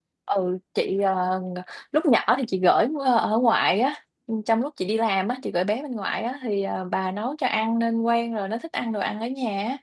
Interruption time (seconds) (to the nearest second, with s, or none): none